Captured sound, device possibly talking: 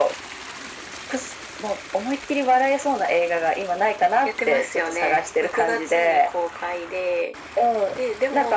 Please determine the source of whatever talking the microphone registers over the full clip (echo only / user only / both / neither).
echo only